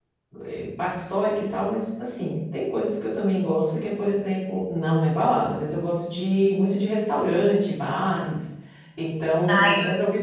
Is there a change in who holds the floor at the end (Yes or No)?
Yes